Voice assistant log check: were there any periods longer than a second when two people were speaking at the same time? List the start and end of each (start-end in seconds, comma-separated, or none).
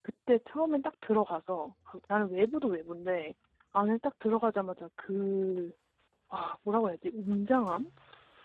none